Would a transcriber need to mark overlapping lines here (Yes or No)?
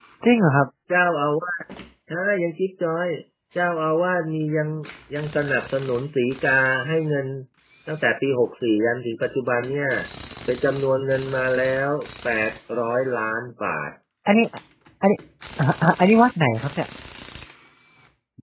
No